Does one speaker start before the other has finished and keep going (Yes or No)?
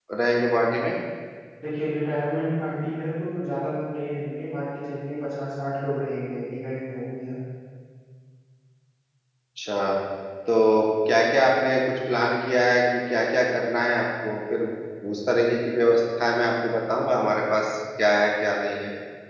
No